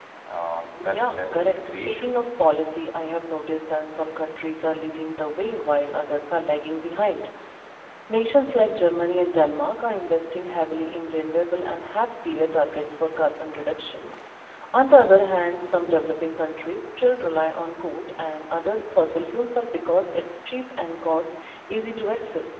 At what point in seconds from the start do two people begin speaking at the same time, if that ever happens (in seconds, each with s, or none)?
0.8 s